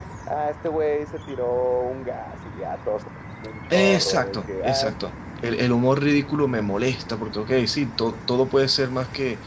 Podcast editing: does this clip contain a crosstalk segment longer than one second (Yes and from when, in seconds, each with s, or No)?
Yes, from 3.7 s